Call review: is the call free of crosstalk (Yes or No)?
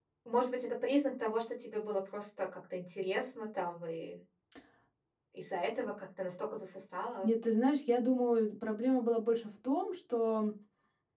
Yes